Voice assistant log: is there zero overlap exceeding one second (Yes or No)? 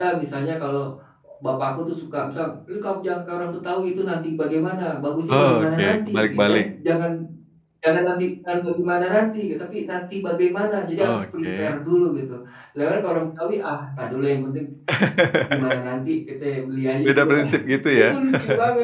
No